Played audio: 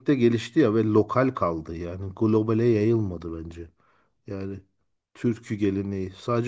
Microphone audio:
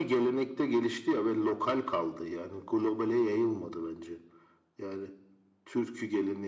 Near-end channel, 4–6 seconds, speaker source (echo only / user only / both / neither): echo only